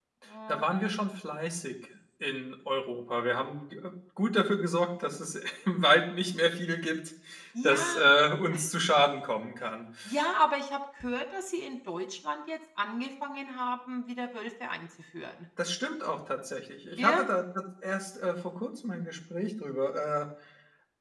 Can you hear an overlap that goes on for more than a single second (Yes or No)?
No